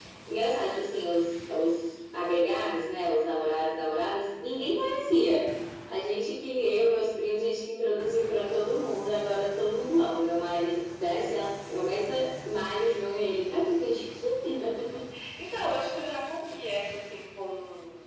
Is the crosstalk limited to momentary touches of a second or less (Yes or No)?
Yes